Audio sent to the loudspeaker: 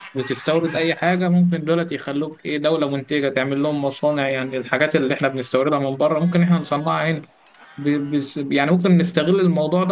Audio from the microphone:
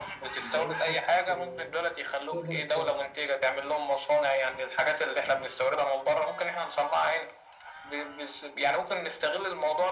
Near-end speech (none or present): present